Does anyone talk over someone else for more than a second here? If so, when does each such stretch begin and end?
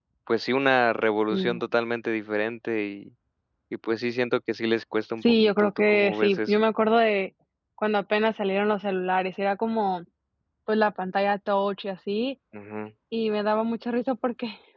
5.2-6.5

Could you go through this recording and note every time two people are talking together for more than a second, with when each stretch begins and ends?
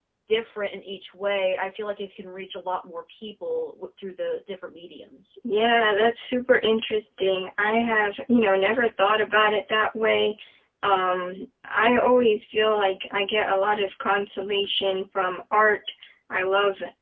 none

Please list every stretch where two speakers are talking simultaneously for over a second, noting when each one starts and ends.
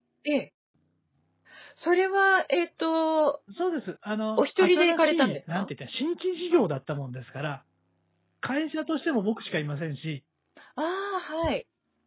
4.4-5.7

